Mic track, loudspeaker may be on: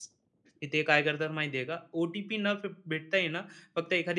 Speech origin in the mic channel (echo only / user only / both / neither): user only